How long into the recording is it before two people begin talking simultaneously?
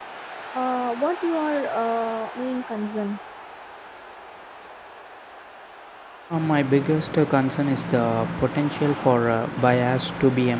none

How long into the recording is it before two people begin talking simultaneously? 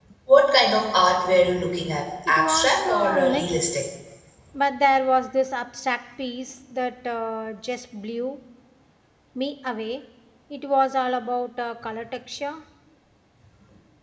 2.3 s

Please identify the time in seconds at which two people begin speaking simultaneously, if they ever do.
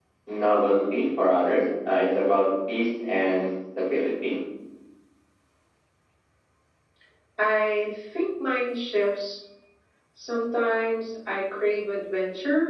none

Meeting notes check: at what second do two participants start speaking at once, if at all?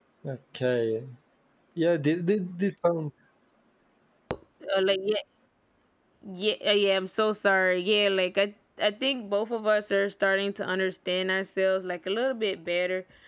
none

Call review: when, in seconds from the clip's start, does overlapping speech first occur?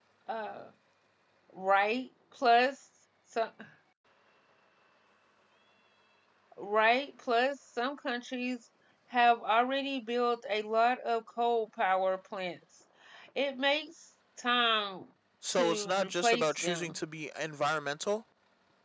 15.5 s

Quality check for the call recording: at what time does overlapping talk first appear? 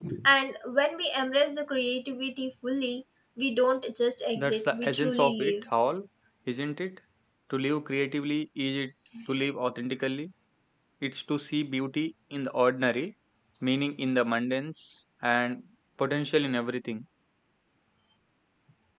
4.4 s

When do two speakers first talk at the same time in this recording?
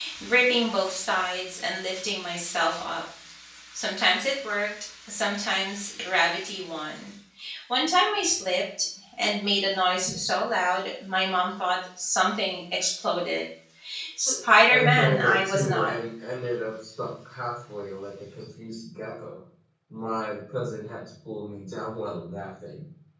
14.7 s

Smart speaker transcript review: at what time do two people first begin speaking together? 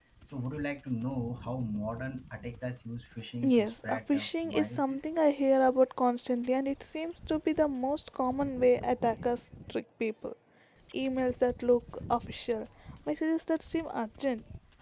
3.4 s

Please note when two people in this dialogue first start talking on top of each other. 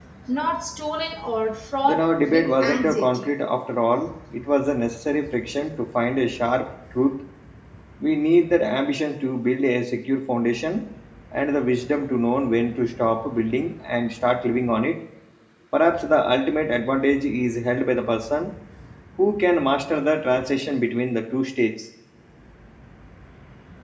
1.8 s

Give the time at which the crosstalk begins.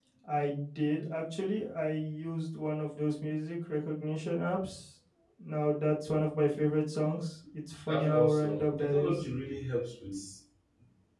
7.9 s

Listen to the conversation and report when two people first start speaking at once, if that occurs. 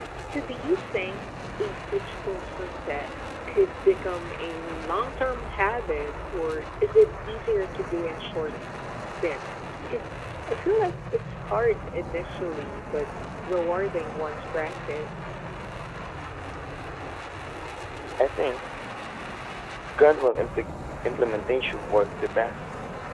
none

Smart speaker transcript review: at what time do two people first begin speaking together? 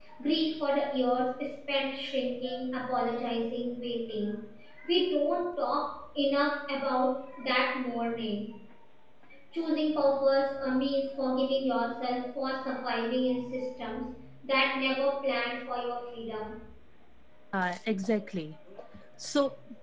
none

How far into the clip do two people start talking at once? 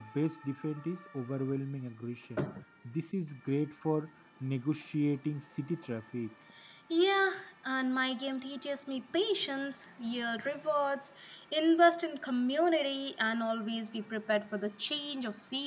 none

